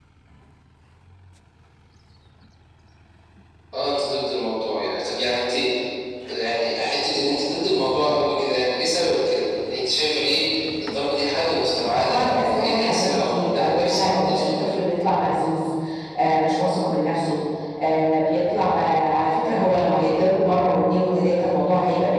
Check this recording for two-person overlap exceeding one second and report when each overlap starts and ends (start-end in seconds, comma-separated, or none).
12.1-14.7